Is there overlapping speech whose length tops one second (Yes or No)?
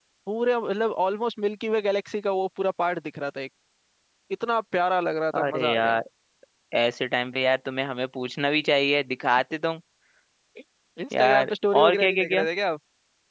Yes